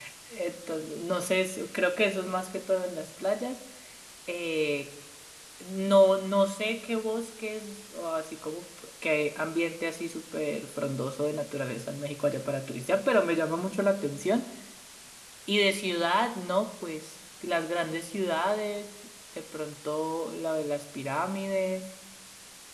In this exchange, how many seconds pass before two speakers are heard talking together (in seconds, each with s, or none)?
none